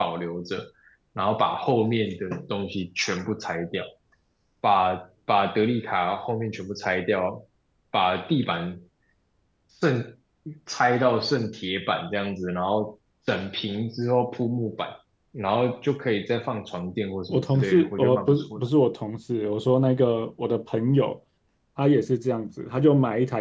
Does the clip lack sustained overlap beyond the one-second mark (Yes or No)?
No